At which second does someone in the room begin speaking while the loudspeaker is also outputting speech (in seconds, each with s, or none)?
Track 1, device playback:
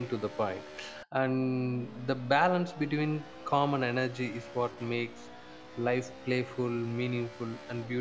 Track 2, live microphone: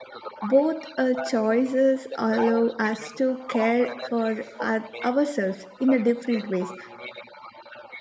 0.4 s